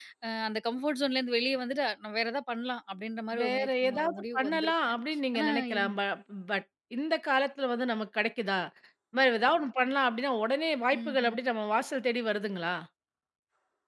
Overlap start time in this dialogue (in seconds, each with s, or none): 3.4 s